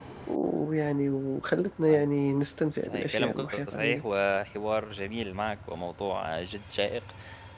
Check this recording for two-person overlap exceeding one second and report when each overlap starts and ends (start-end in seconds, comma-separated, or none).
2.8-4.0